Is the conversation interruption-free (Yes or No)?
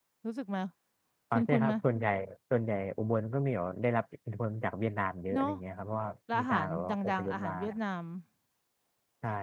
No